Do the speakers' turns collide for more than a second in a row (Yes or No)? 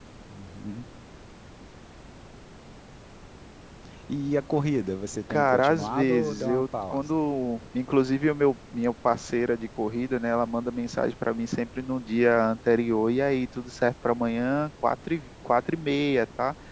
Yes